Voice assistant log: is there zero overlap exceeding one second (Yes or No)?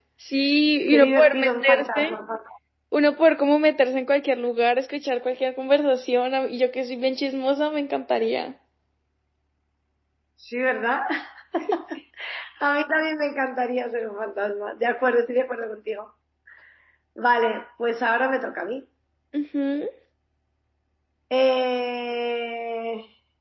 No